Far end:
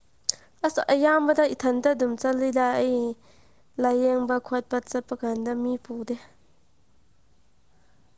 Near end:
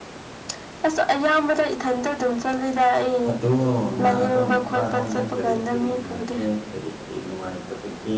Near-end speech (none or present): present